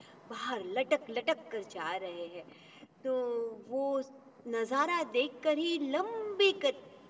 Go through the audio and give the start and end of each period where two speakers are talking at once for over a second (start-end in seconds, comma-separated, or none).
none